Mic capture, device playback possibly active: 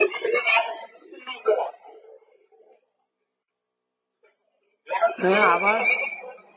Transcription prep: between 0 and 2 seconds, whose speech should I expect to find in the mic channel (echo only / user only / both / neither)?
echo only